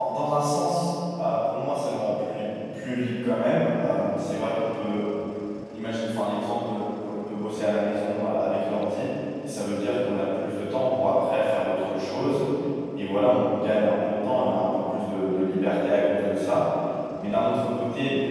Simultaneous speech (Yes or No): No